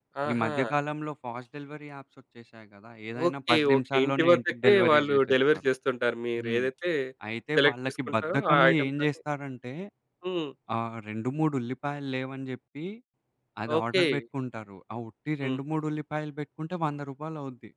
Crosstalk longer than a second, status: present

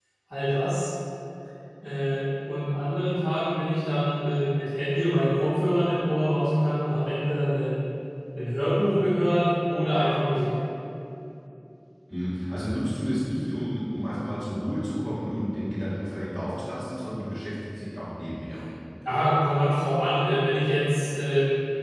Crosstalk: none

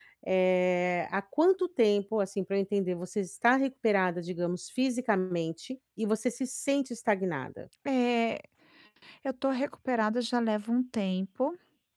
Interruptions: none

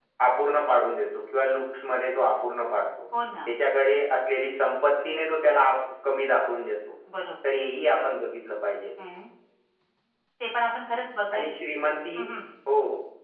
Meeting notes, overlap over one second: none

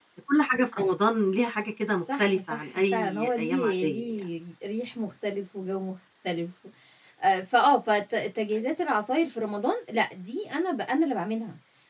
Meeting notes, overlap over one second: present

